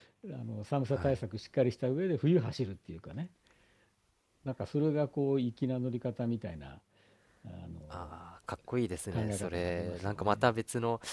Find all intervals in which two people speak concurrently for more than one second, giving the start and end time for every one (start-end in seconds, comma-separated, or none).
9.1-10.5